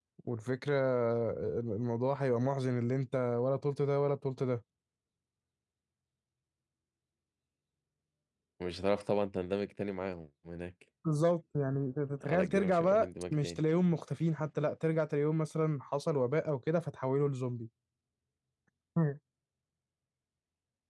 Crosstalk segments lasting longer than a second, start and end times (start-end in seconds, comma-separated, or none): 12.2-13.6